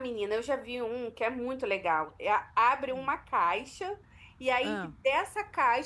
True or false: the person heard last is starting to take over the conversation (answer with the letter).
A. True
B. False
B